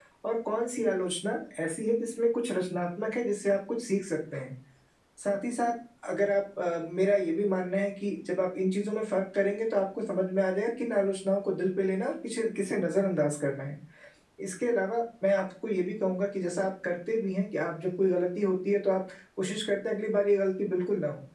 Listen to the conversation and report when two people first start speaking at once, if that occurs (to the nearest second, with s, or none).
none